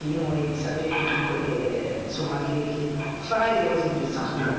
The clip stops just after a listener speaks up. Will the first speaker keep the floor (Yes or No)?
No